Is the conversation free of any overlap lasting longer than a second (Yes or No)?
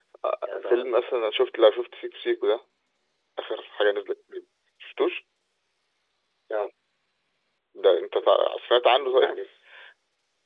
Yes